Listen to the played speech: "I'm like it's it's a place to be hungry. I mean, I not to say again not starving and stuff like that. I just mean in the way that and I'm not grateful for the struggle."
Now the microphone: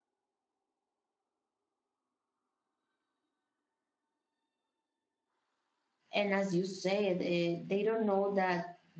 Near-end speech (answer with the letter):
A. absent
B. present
B